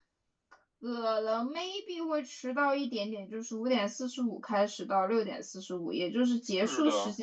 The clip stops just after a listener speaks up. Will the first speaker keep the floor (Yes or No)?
Yes